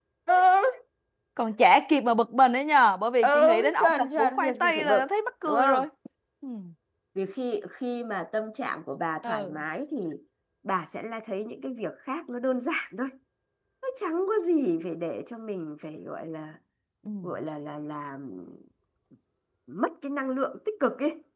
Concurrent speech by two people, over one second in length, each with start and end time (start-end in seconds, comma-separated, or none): 3.2-5.0